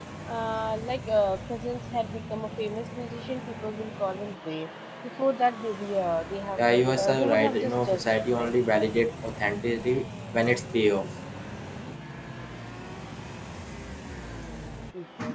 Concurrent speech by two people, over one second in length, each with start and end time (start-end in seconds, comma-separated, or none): 6.6-8.5